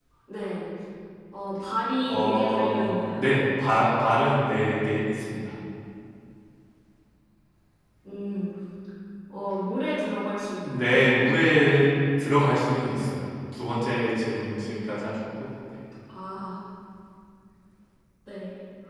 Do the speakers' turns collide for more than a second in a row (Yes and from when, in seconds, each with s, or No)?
Yes, from 2.0 s